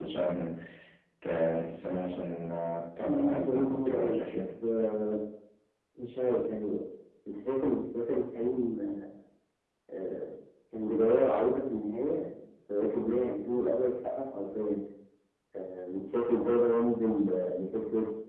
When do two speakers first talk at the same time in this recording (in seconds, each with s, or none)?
3.0 s